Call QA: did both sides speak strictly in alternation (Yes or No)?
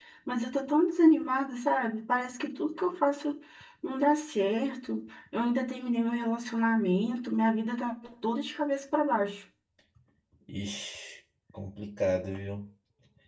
Yes